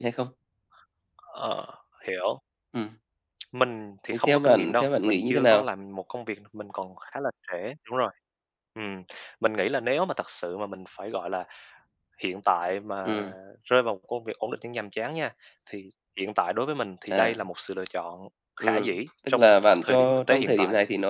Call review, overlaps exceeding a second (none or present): present